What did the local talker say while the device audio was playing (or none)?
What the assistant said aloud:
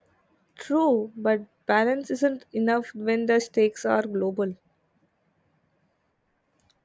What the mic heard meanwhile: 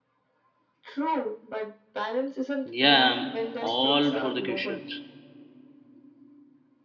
Yeah, I'm all for the questions.